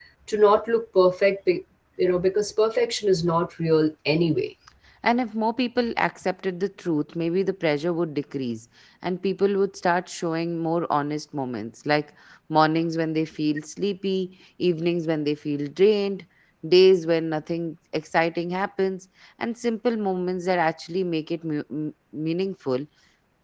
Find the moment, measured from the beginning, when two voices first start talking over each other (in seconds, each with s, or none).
none